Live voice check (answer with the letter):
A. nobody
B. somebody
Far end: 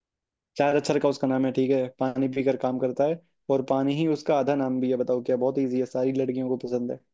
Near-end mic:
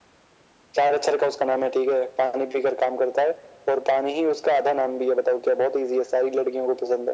A